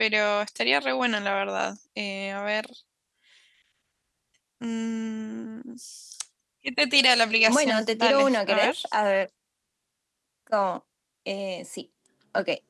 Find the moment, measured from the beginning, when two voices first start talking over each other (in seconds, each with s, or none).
7.5 s